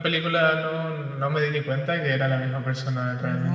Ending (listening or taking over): taking over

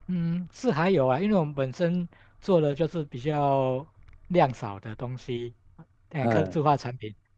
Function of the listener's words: listening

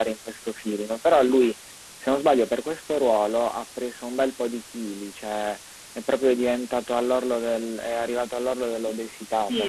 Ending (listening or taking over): taking over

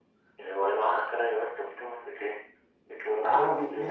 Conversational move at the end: taking over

